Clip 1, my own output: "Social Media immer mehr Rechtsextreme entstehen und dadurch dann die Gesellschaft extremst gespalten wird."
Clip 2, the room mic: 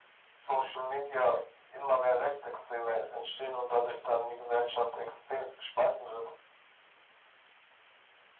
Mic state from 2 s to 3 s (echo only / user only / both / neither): echo only